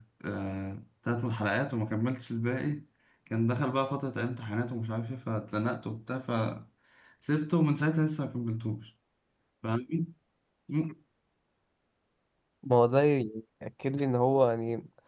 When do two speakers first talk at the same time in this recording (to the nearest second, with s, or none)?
none